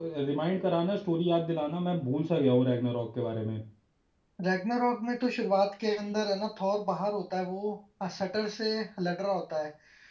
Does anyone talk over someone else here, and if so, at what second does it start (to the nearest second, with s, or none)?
none